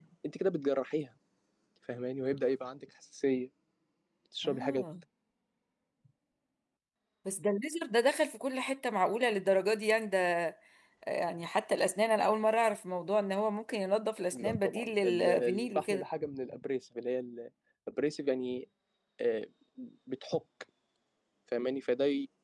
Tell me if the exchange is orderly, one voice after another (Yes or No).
No